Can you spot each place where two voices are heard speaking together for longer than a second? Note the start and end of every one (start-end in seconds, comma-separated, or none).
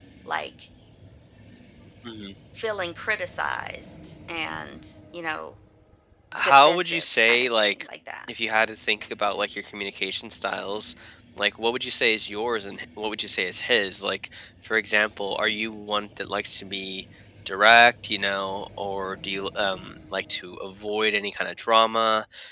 6.4-7.9